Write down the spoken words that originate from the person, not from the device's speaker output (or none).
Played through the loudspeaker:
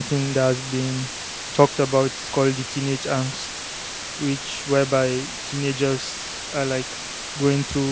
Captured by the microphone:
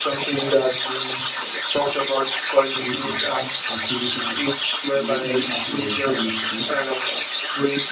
what is a teenage angst. We ju- just have to understand it first